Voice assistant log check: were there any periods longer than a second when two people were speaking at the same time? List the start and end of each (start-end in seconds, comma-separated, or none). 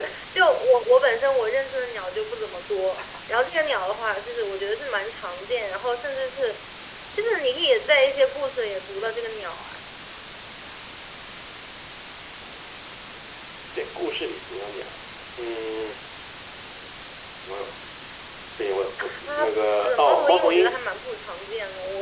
19.0-20.8